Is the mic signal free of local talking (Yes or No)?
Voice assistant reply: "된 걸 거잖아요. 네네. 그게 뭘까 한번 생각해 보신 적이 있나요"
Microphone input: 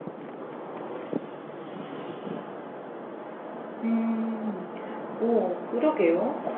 No